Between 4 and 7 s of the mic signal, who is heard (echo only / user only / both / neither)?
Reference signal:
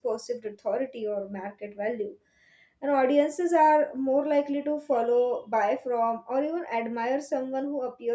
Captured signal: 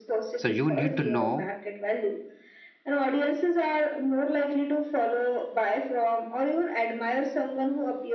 echo only